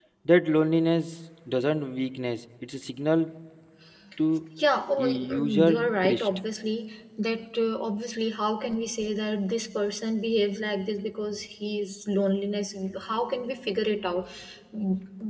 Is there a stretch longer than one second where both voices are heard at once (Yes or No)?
Yes